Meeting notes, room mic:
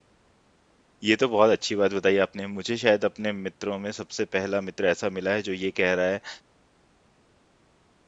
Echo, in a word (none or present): none